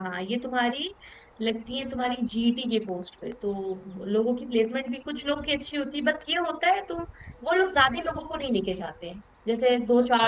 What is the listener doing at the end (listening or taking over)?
listening